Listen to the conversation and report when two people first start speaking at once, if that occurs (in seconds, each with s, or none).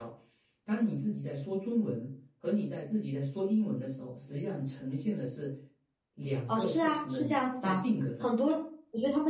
6.5 s